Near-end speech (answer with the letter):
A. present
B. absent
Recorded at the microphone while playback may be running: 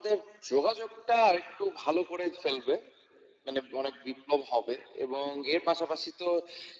B